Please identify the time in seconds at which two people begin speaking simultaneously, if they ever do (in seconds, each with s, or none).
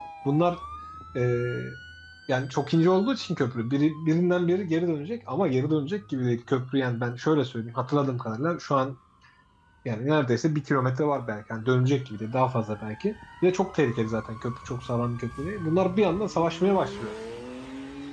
none